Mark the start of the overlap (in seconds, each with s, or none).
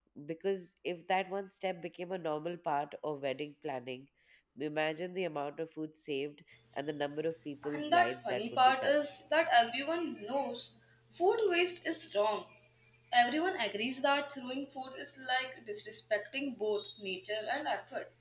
7.6 s